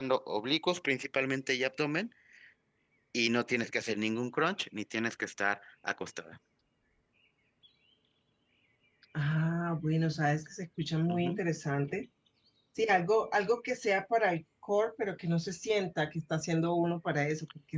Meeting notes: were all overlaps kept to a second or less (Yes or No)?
Yes